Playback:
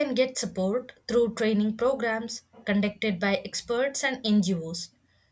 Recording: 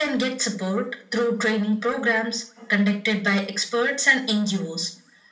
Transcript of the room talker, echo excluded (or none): none